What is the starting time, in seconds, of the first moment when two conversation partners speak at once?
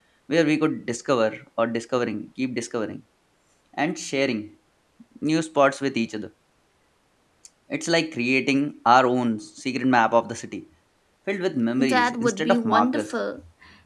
11.8 s

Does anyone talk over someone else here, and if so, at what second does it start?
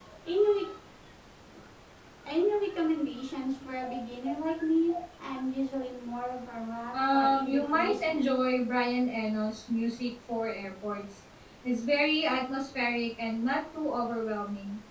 6.9 s

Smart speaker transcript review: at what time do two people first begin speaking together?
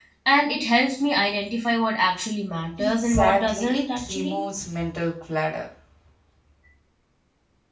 2.8 s

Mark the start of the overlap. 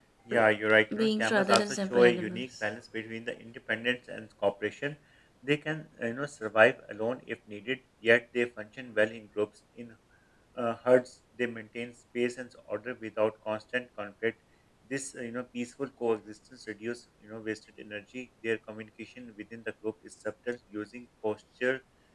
1.0 s

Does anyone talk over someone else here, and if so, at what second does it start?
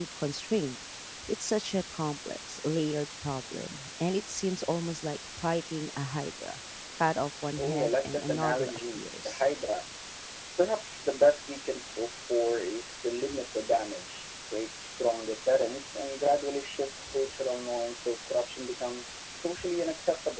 7.6 s

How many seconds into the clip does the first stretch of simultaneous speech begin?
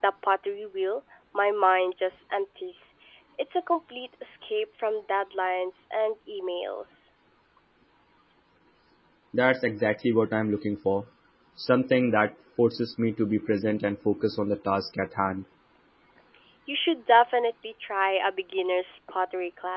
none

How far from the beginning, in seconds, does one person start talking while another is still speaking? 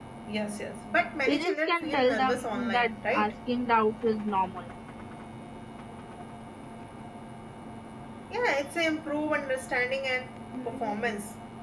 1.3 s

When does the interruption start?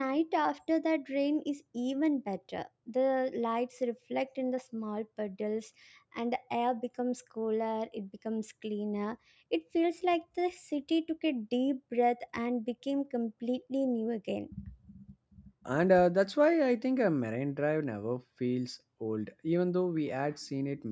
none

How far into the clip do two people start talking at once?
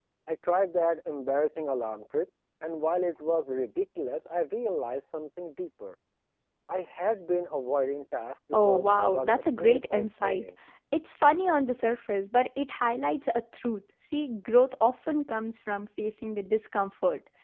8.5 s

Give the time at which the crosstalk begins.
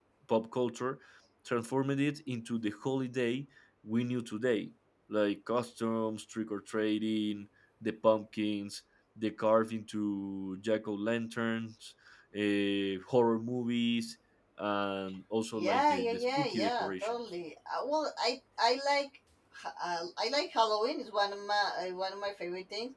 15.6 s

